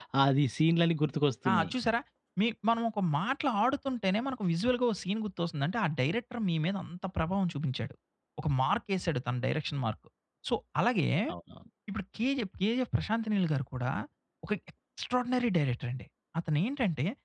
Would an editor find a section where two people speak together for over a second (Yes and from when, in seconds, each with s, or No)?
No